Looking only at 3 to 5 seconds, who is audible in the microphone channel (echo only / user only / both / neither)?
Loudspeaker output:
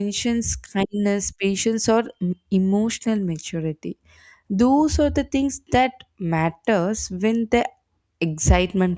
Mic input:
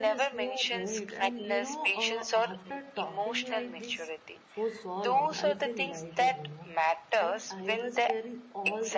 both